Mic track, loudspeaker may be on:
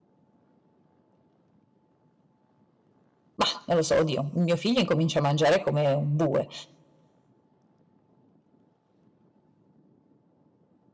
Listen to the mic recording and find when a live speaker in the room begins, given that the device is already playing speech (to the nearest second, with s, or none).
3 s